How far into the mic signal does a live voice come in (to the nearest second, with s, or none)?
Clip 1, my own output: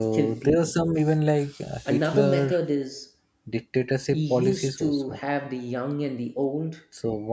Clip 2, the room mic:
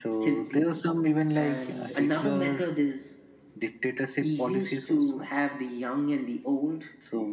1 s